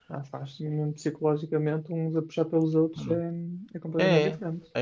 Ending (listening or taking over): taking over